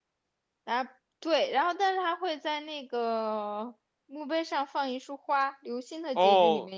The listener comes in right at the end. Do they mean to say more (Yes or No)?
Yes